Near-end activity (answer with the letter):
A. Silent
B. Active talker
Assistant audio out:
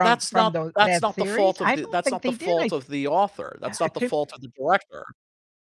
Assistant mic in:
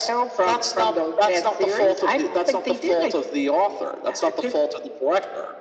A